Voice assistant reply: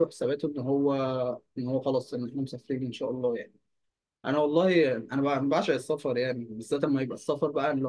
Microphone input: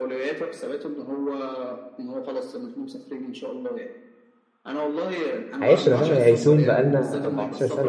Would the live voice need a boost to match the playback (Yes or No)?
No